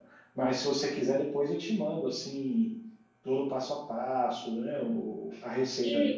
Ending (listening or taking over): taking over